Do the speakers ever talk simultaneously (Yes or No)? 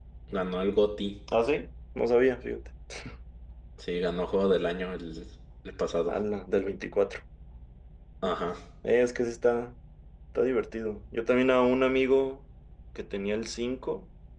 No